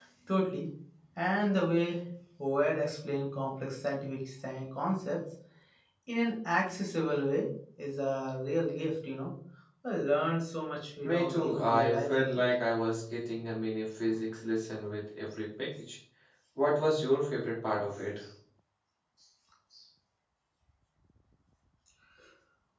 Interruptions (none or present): present